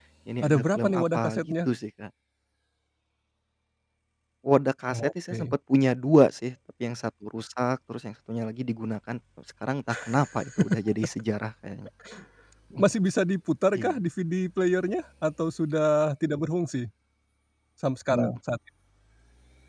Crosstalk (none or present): present